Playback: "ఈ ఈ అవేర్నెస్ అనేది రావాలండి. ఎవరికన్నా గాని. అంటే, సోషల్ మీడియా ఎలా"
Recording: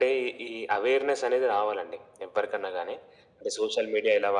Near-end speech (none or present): none